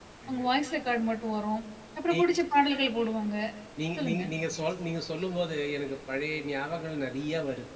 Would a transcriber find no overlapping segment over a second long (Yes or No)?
Yes